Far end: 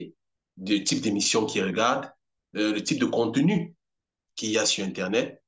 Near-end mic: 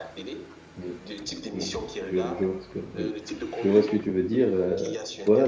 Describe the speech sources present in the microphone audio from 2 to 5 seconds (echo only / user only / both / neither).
both